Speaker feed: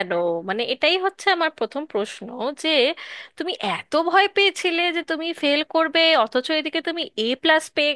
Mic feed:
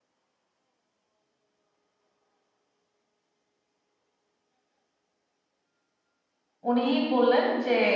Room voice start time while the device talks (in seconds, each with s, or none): 6.7 s